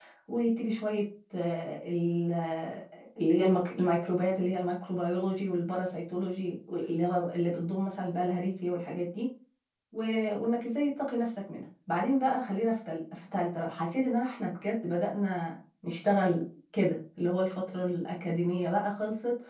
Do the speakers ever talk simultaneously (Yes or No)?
No